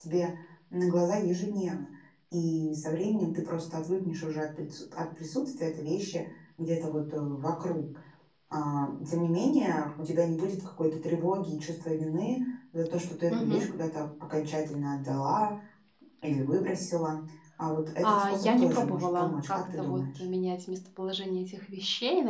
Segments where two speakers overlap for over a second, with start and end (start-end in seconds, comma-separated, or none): 18.0-20.2